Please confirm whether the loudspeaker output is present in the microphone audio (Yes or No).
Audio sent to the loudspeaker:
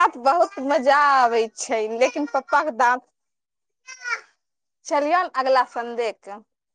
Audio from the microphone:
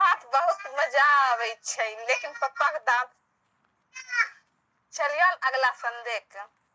Yes